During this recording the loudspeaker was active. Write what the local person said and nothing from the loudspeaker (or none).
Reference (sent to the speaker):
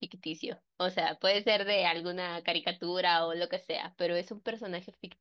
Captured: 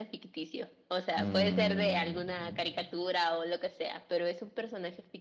Mm,